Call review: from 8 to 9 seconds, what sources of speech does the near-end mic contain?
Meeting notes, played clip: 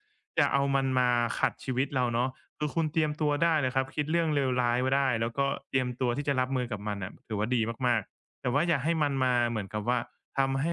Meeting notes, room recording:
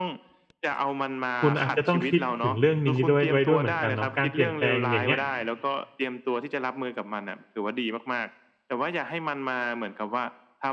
echo only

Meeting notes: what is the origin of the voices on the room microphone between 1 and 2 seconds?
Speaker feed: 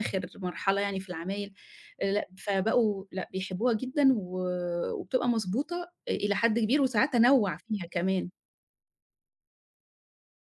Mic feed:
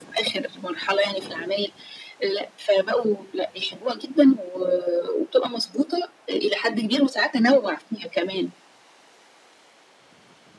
echo only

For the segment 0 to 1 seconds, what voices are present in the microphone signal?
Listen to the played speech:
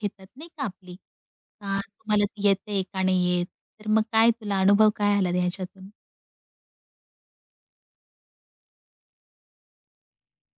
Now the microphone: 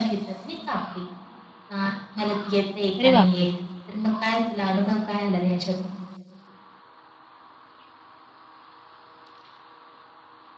echo only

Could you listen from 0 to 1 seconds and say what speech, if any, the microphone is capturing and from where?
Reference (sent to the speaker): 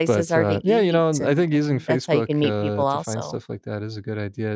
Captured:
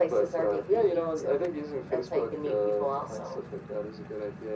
echo only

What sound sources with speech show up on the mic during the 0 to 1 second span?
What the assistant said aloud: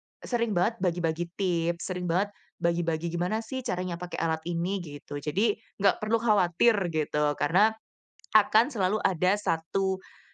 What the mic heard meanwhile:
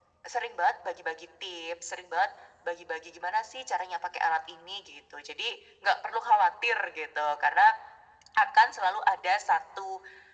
echo only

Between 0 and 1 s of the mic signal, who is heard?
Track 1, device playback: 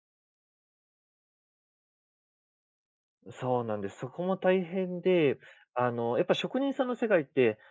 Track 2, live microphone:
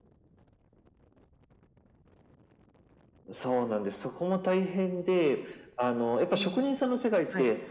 neither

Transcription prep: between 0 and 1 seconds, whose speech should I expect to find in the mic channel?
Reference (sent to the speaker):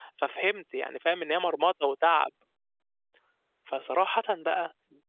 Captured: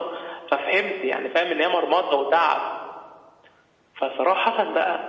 echo only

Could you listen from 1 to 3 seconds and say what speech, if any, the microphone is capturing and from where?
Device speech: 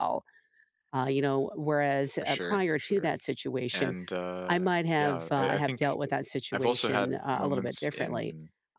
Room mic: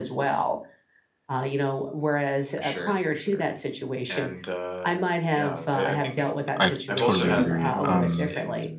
echo only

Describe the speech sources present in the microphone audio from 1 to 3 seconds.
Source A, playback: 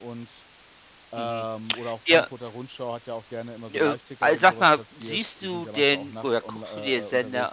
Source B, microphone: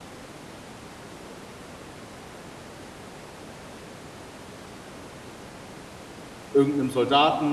neither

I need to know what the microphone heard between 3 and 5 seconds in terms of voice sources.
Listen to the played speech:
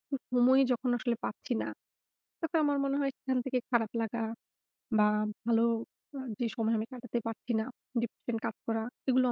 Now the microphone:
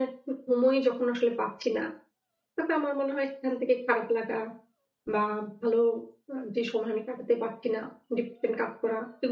echo only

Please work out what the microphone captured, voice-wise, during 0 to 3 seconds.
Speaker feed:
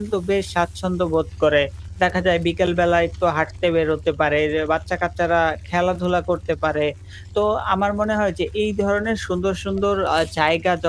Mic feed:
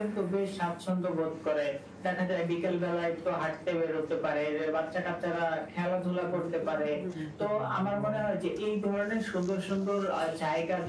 echo only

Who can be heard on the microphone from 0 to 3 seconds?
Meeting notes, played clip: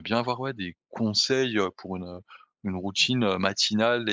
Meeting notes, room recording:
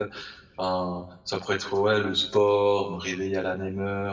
user only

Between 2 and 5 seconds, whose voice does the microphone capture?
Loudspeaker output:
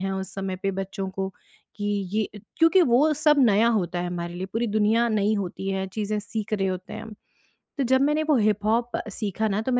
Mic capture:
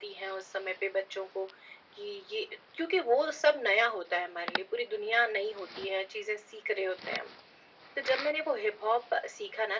echo only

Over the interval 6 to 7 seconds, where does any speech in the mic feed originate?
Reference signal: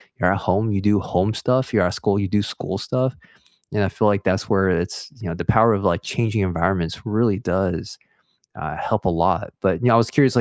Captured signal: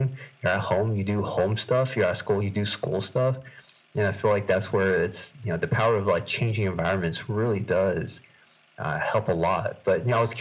echo only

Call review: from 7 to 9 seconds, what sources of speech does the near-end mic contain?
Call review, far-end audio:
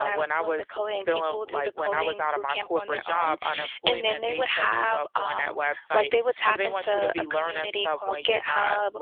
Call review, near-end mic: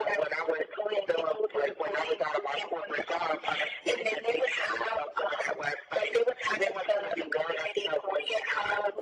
echo only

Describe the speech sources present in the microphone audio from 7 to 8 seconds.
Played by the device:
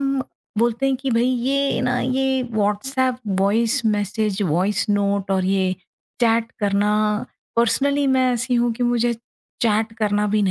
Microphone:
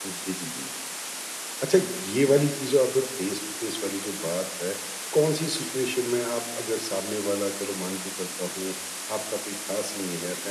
user only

